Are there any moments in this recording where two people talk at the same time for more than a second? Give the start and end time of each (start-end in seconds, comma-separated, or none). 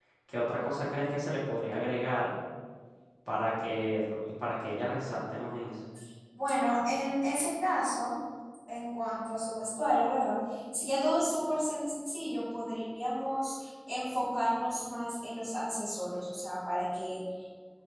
none